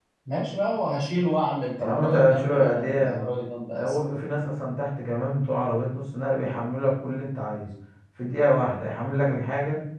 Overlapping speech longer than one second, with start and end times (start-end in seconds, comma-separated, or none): 1.8-3.2